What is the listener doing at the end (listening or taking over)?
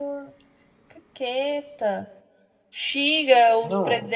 listening